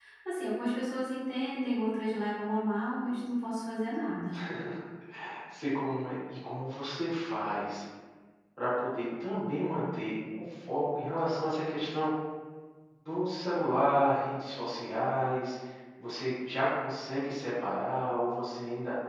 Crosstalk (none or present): none